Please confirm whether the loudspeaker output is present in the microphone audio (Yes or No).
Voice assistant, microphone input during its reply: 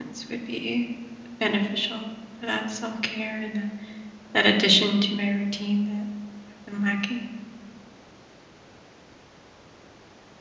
No